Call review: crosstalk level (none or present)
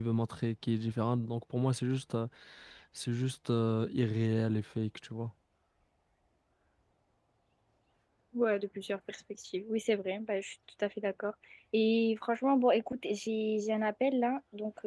none